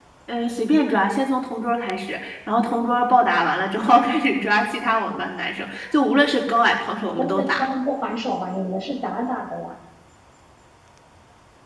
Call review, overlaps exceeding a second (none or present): none